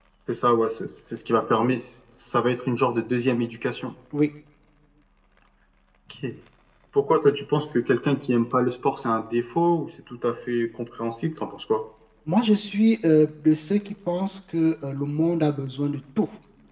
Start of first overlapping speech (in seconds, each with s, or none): none